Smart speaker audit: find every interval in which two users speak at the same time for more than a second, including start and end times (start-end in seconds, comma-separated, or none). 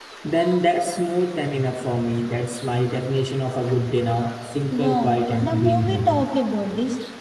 4.7-6.2